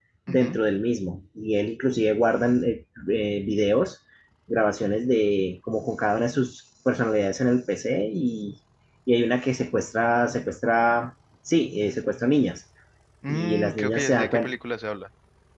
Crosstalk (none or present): present